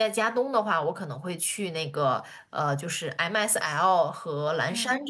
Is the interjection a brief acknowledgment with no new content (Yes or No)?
Yes